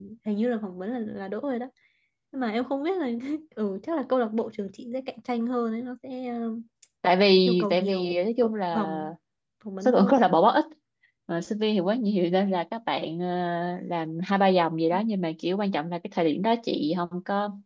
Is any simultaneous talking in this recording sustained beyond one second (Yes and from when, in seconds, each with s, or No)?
Yes, from 7.5 s